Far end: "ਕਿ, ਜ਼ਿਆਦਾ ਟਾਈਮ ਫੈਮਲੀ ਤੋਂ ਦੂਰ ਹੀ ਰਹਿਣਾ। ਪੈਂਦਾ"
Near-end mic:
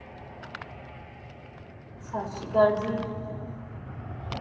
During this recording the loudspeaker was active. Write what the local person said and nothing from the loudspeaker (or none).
ਸਤਿ ਸ਼੍ਰੀ ਅਕਾਲ ਜੀ।